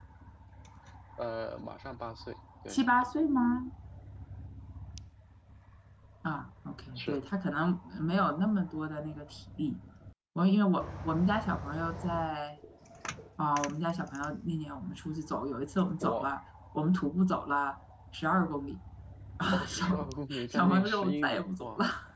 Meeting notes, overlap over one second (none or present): present